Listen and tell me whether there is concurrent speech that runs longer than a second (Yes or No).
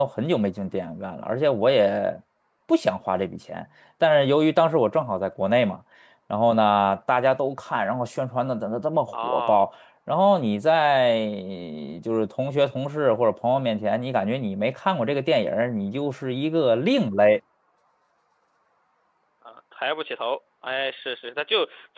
No